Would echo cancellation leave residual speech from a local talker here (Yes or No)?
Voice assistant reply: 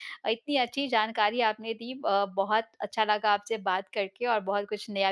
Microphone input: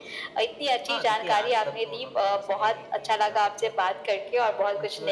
Yes